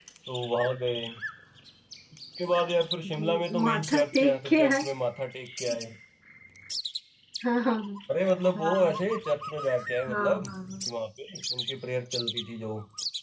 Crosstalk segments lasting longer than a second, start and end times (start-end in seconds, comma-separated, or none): 3.0-4.8